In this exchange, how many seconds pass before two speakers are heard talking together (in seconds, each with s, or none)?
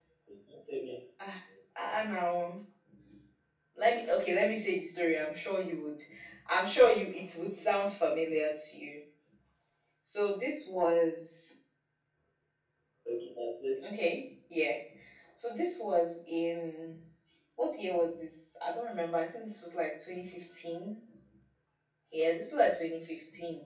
none